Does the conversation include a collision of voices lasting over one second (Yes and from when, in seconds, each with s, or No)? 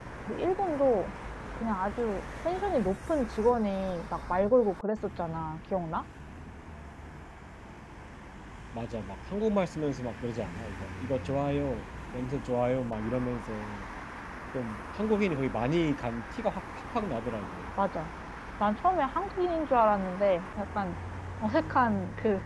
No